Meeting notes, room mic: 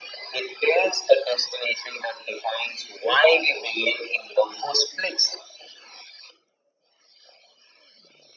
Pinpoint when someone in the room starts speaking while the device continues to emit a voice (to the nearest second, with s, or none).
none